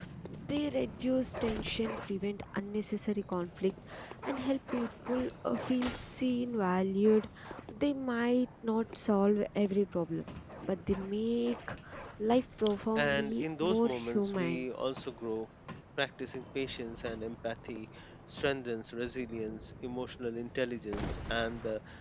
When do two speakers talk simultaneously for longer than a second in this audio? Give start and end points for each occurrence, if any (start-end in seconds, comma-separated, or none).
13.0-14.7